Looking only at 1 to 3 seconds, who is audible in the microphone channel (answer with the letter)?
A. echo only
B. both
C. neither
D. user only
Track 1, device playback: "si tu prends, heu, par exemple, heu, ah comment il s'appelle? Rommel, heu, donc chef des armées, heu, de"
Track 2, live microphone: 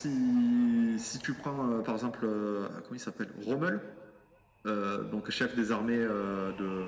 A